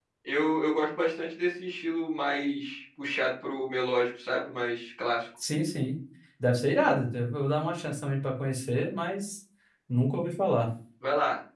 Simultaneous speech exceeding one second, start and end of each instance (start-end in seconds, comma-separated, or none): none